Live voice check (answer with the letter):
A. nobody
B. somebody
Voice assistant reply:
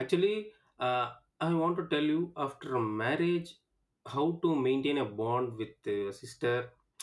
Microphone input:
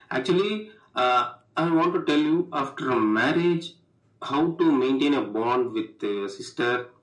A